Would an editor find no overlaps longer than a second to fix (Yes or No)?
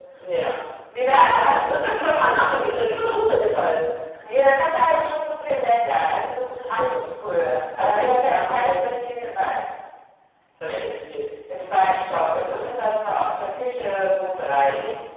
No